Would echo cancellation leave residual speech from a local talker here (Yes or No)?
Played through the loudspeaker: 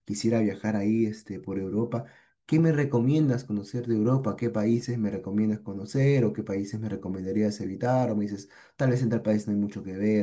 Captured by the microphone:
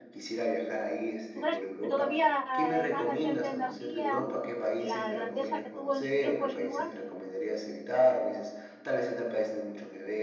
Yes